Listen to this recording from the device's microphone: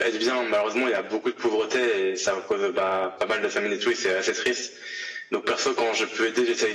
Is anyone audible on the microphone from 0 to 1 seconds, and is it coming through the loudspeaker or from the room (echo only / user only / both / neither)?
echo only